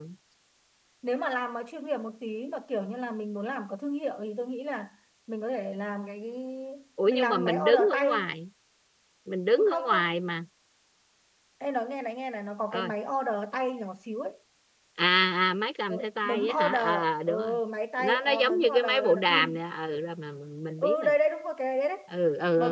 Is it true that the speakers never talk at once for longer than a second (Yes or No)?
No